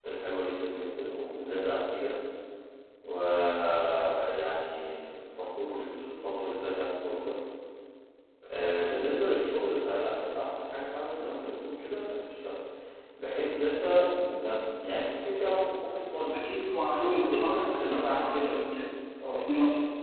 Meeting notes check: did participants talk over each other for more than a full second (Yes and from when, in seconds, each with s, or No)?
Yes, from 17.2 s